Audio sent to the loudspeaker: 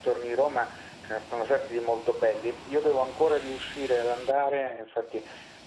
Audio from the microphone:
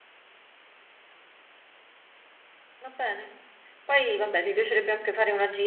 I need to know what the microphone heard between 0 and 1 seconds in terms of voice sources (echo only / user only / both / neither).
neither